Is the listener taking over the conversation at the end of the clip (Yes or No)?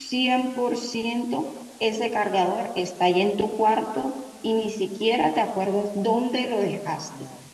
No